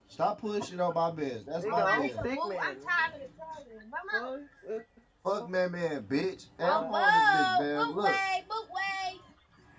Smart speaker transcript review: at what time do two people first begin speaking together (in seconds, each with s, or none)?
1.6 s